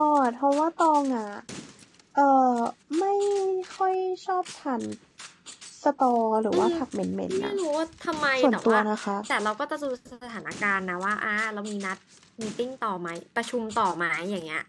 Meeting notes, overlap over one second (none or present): none